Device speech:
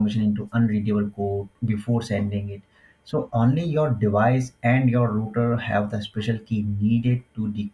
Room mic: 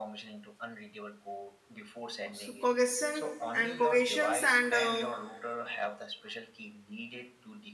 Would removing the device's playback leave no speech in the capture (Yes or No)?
No